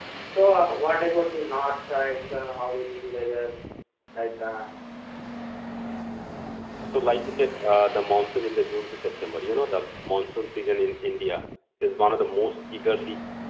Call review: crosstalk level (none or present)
none